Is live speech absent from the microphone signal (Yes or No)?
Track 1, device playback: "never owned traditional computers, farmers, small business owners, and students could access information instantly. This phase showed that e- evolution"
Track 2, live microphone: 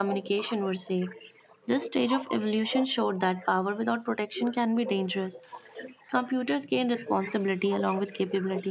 No